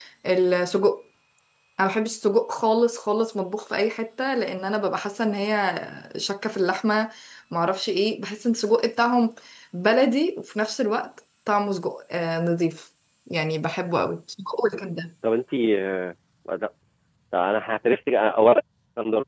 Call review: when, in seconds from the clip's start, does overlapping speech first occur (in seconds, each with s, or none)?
none